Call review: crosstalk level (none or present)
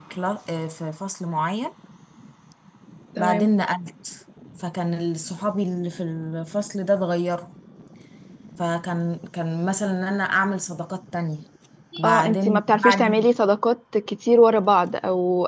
present